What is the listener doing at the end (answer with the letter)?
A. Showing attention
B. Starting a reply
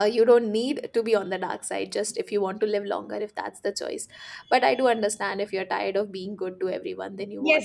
B